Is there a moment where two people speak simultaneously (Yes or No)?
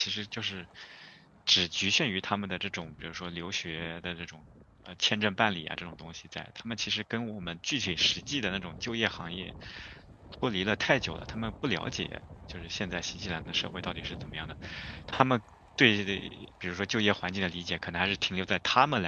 No